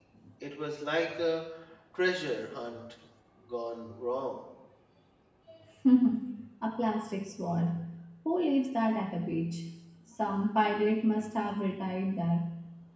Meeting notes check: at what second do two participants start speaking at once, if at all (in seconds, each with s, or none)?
none